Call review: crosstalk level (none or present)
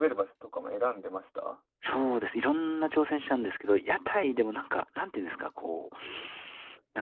none